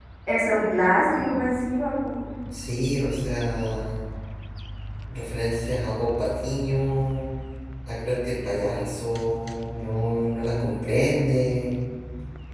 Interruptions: none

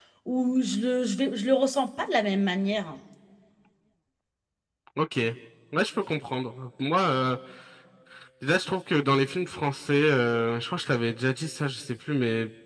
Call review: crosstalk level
none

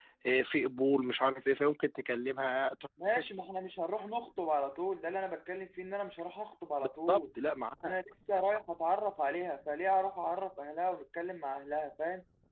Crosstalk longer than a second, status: none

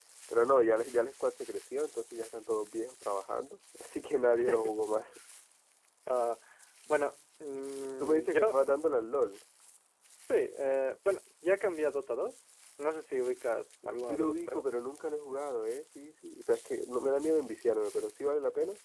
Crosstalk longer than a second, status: none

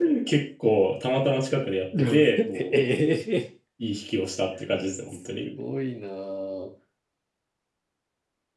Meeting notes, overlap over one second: none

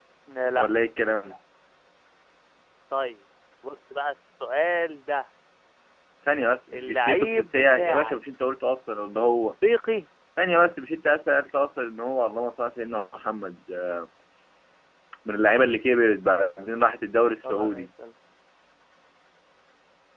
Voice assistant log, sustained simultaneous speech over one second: present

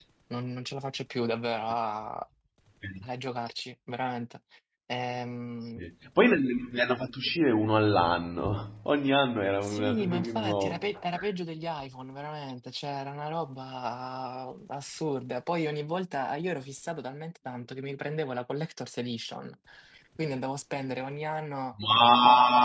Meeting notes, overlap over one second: present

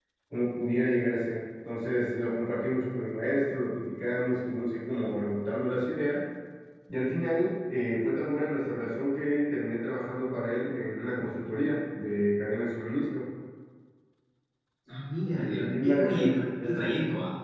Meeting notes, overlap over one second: present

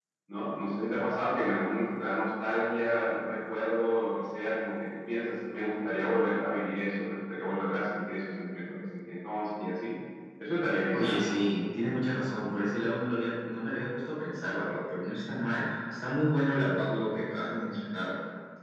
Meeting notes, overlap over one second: none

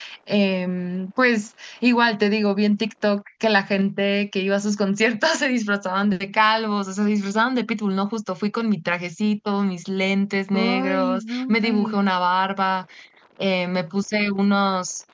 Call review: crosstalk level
present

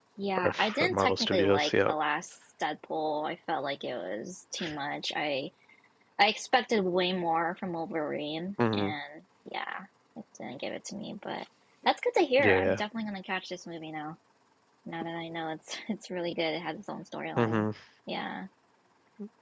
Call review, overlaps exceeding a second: present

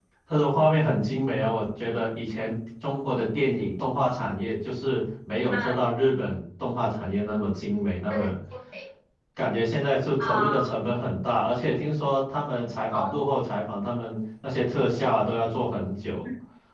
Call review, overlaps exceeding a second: none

